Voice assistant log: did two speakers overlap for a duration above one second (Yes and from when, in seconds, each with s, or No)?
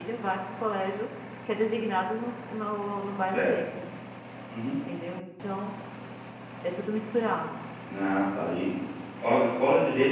No